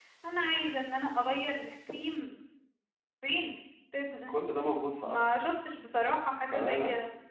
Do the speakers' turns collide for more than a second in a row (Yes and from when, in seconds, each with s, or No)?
No